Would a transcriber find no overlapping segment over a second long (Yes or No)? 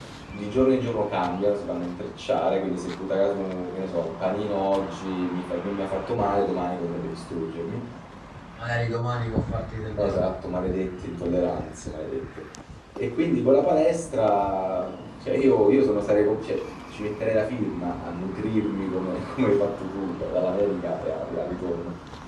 Yes